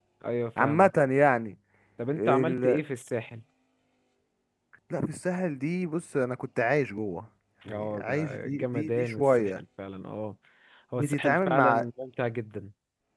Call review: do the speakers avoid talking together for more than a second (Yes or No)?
No